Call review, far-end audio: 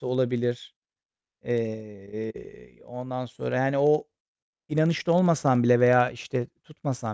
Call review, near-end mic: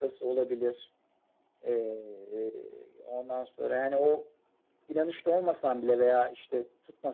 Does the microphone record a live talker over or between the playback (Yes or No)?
No